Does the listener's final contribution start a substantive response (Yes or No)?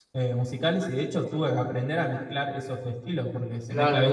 Yes